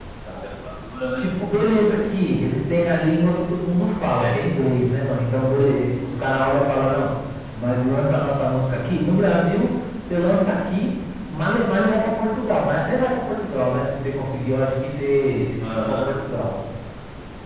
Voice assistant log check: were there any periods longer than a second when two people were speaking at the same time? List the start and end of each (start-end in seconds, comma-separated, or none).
none